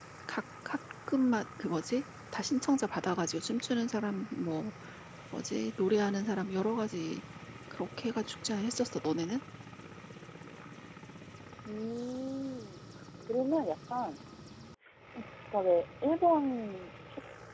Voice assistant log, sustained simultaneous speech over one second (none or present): none